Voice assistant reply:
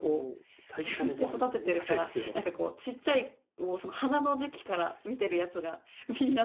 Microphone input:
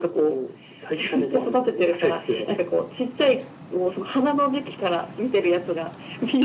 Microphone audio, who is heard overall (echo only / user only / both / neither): echo only